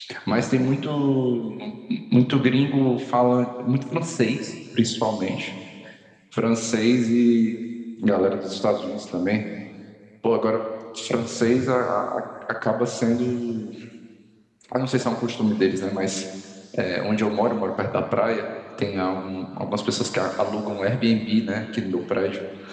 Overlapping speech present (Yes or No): No